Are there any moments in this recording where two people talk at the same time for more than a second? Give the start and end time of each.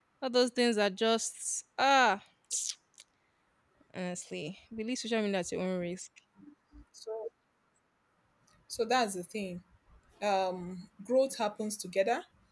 none

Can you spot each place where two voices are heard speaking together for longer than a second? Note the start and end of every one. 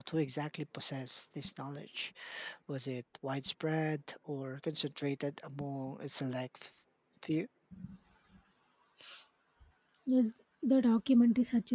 none

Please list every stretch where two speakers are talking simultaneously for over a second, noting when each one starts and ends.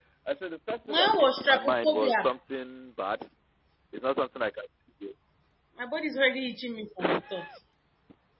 0.9-2.3

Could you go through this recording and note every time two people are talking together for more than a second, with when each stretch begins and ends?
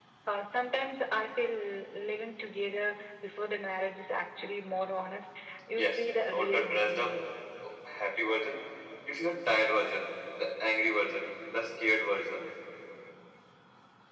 5.8-7.1

